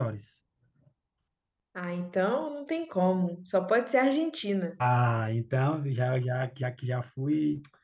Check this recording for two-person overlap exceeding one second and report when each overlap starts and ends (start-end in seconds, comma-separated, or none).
none